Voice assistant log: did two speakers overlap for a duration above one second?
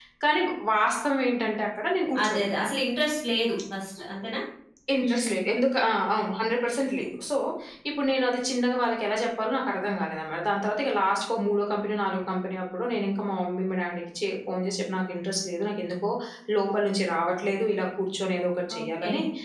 No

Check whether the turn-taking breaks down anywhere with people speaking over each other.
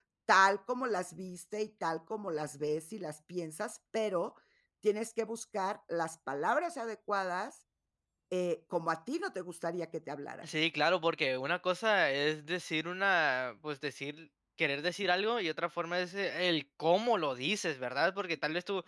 No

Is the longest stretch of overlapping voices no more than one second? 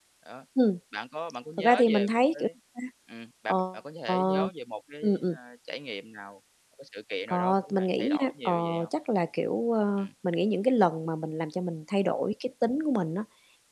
No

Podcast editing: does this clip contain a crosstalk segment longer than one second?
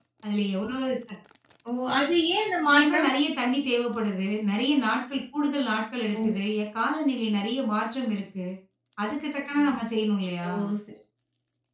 No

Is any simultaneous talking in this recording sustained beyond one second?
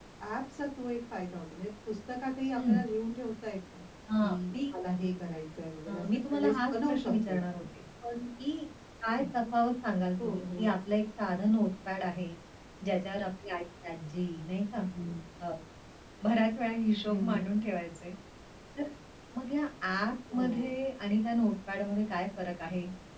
Yes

